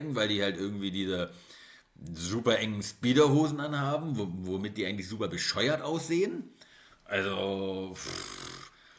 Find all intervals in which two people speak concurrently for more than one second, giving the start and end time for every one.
none

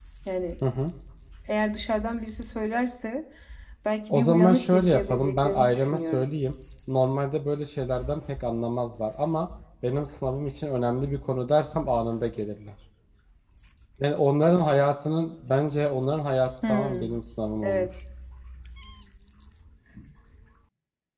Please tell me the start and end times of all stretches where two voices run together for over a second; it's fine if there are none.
4.1-6.3

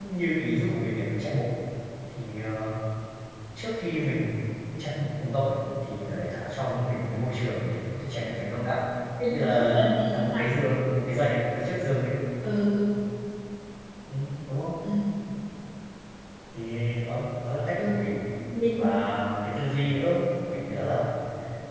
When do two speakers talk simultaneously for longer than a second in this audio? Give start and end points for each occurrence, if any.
9.3-10.6

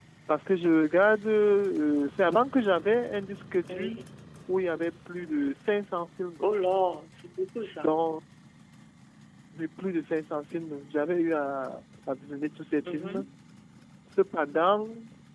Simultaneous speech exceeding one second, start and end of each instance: none

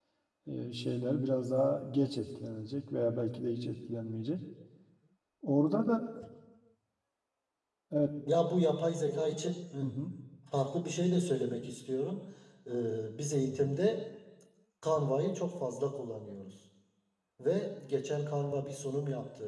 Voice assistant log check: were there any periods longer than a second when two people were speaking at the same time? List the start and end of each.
none

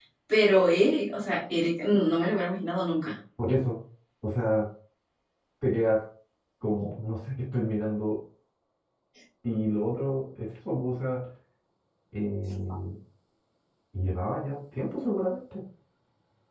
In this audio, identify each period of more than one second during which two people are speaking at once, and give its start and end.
none

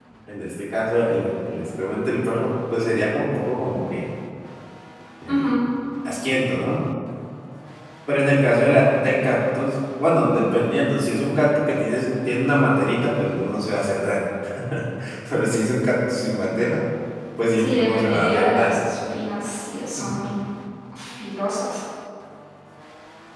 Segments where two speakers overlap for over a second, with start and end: 17.6-18.8

